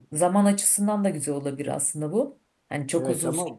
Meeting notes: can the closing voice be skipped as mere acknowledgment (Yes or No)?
No